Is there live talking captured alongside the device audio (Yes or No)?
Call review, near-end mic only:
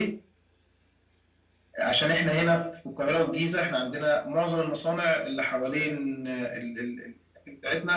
No